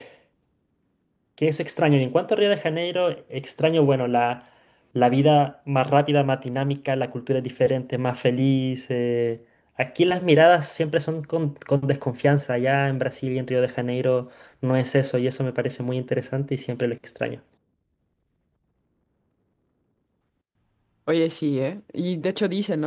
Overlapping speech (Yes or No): No